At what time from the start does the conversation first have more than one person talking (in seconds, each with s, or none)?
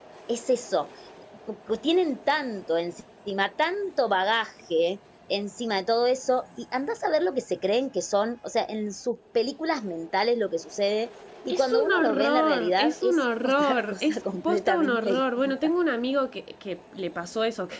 11.5 s